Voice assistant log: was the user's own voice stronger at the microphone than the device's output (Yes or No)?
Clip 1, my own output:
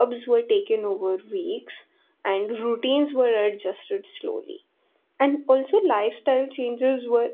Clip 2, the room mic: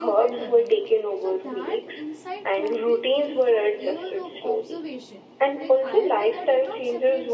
No